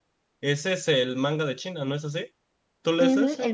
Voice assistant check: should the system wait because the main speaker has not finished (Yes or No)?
No